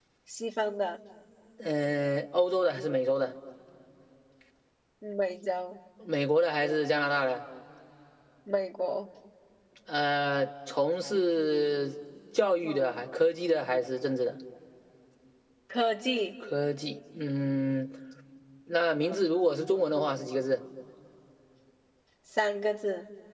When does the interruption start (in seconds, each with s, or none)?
none